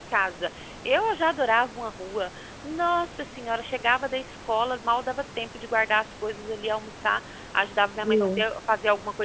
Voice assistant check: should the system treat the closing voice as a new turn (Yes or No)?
No